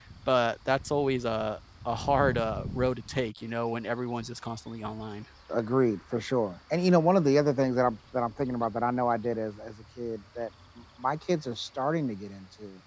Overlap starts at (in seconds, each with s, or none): none